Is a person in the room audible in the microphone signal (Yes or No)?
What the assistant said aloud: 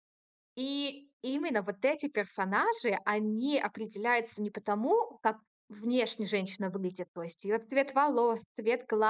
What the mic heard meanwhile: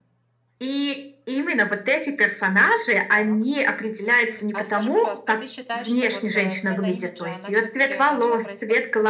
Yes